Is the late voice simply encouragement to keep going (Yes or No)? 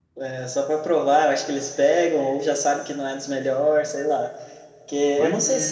Yes